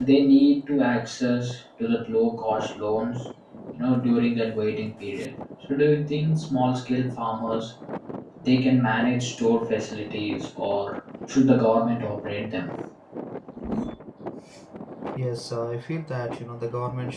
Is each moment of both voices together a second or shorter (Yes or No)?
Yes